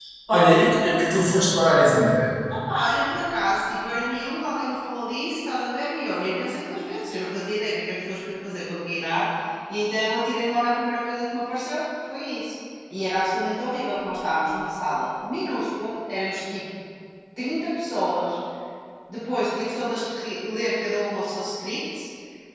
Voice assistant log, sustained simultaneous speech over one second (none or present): none